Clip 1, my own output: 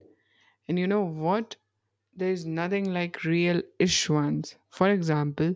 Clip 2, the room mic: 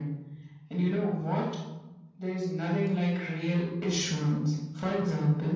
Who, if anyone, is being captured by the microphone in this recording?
echo only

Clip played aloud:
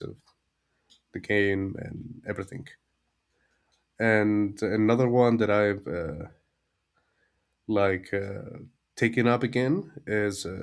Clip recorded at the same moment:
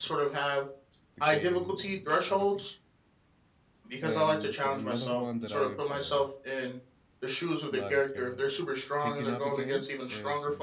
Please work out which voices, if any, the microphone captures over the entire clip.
both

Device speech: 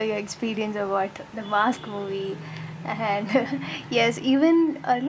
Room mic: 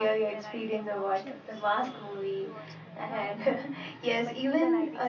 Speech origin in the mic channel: both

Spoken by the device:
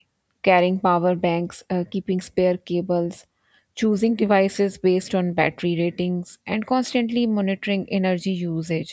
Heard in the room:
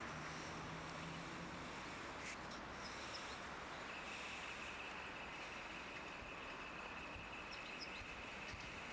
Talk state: neither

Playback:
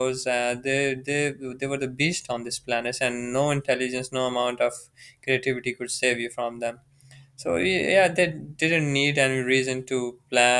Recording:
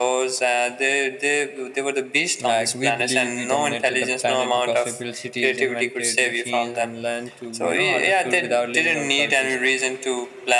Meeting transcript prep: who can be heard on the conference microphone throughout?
both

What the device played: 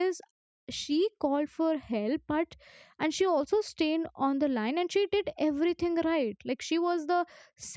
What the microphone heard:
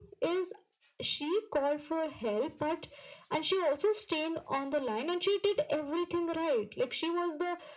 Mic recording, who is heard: echo only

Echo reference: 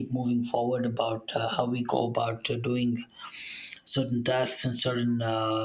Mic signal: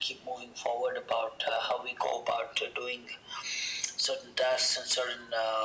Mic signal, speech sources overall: echo only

